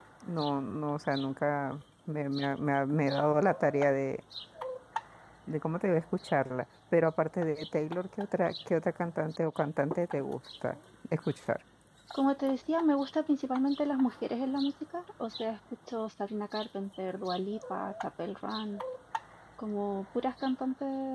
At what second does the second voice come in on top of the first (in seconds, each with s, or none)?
none